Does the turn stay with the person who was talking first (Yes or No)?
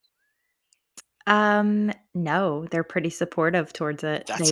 Yes